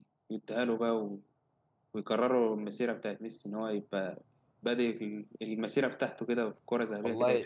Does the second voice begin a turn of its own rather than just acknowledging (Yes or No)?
Yes